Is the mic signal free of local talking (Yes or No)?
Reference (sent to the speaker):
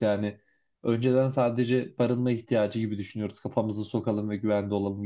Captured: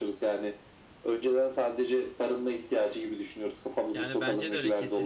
No